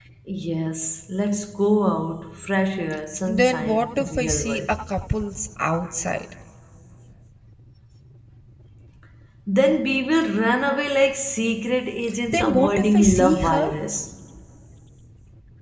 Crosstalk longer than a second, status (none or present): present